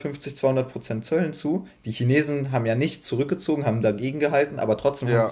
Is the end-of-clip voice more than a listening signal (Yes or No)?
No